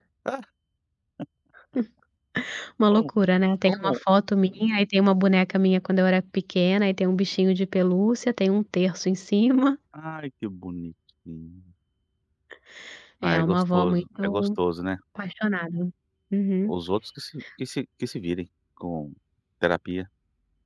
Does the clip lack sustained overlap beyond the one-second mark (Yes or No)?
No